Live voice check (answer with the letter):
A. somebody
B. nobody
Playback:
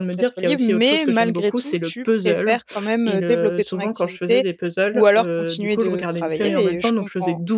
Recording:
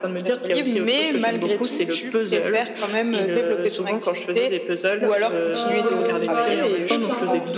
A